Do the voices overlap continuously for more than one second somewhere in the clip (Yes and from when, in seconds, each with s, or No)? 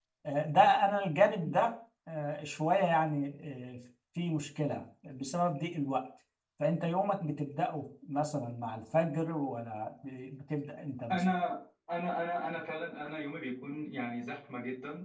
No